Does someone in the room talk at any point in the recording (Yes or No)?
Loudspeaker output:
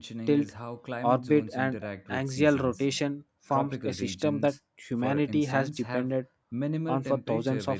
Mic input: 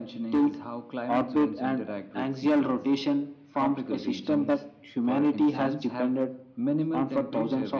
No